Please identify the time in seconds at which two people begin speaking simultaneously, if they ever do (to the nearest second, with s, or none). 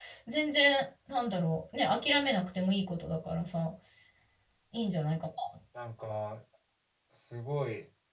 none